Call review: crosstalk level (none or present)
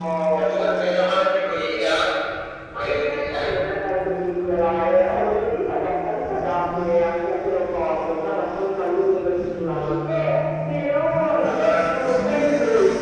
present